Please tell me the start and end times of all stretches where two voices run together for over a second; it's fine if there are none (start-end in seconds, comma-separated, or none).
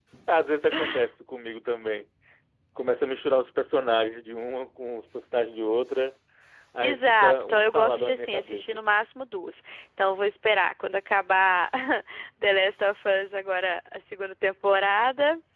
6.8-8.8